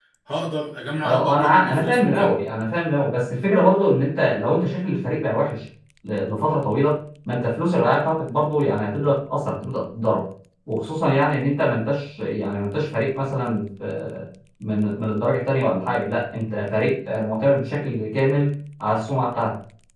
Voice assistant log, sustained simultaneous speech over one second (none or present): present